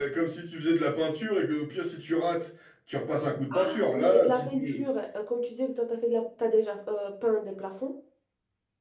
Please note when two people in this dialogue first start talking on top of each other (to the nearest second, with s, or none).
4 s